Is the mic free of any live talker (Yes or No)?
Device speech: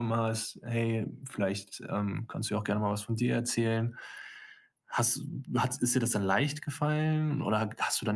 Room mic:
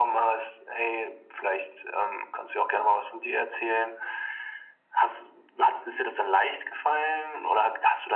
Yes